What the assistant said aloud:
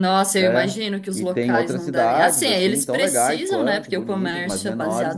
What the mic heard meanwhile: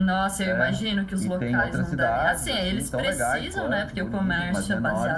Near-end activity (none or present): none